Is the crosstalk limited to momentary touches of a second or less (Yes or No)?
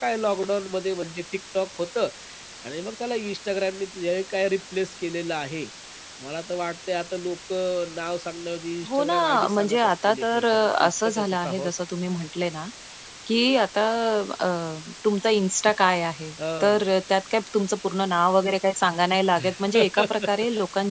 No